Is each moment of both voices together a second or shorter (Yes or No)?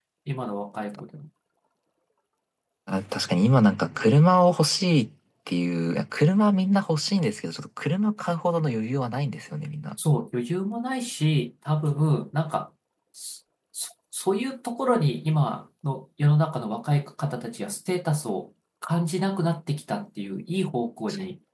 Yes